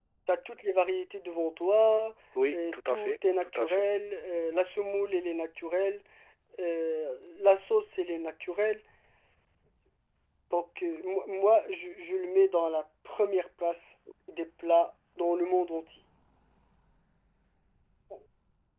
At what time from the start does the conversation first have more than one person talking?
3 s

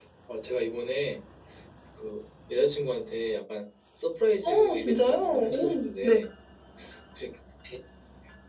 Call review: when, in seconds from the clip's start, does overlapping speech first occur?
4 s

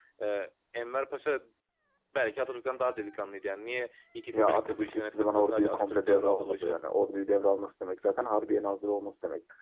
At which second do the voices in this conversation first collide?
4 s

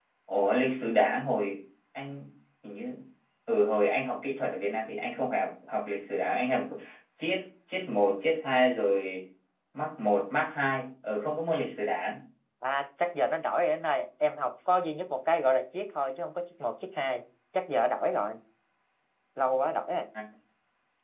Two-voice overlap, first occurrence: none

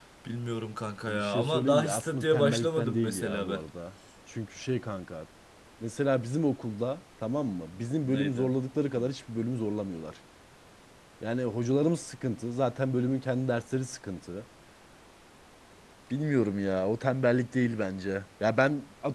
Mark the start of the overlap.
1 s

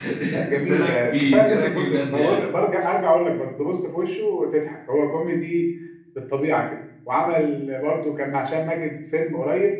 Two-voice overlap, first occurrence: 1 s

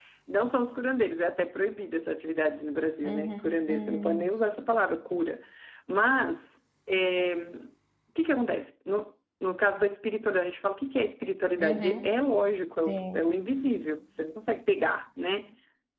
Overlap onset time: 3 s

